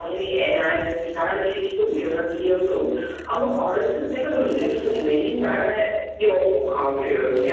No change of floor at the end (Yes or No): Yes